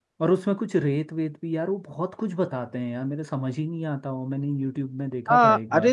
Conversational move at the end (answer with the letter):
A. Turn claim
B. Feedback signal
A